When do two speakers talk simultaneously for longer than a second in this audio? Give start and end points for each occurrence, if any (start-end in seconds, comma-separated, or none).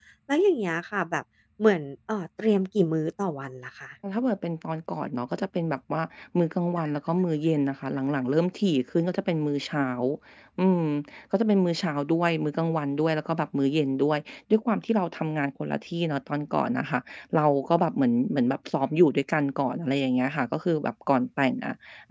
none